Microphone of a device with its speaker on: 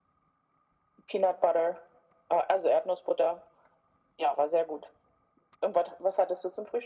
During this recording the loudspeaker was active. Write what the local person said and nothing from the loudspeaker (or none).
none